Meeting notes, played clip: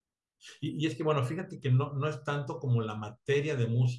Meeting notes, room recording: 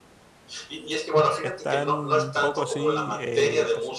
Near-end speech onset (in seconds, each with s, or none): 1.4 s